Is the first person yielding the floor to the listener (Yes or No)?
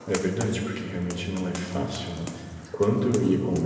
No